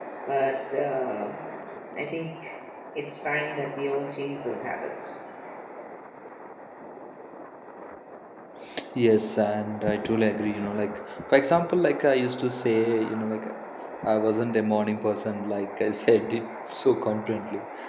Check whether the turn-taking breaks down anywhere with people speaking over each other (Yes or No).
No